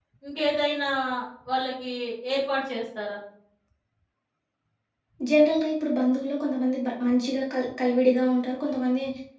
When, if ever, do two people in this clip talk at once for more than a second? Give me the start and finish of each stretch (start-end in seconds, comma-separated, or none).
none